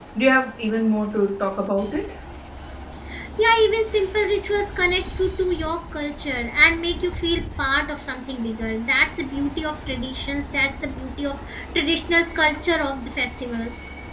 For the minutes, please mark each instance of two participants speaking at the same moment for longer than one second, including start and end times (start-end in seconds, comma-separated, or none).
none